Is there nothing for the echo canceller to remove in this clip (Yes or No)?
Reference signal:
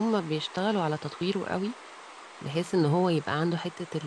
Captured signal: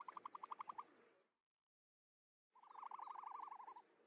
Yes